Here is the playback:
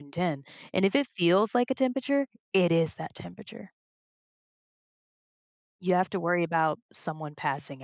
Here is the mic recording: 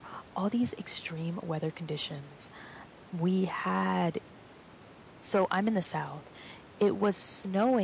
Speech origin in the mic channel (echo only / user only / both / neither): user only